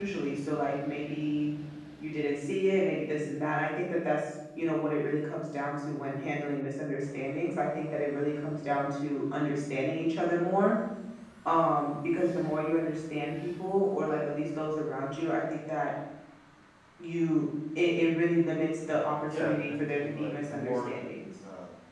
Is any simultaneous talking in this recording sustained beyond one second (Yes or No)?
Yes